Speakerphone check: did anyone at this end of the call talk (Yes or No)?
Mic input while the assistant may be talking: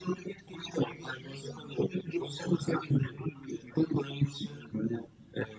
No